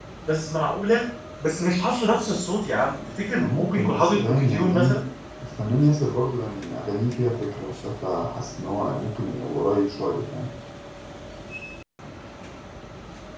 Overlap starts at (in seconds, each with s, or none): 3.4 s